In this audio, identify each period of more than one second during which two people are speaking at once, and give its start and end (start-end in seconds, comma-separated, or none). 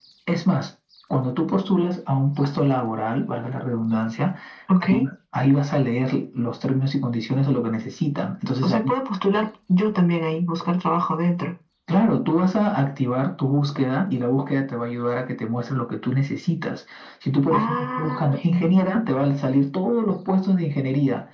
17.5-19.0